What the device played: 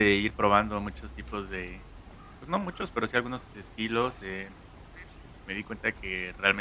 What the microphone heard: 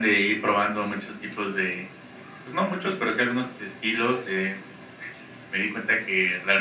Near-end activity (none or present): none